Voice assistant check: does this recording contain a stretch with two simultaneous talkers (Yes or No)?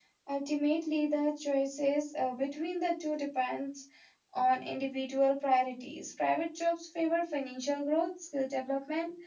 No